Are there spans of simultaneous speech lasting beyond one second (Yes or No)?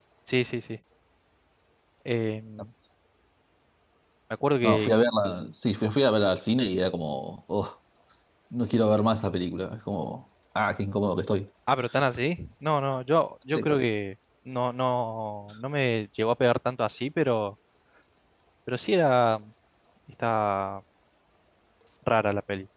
No